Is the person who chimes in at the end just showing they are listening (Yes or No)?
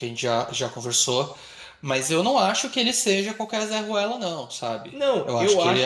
No